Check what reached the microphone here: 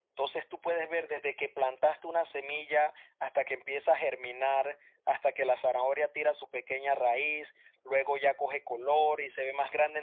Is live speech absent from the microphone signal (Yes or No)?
Yes